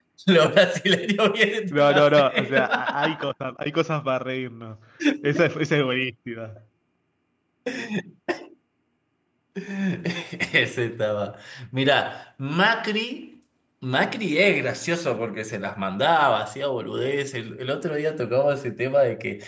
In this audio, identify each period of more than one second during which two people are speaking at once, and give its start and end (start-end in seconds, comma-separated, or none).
1.7-3.1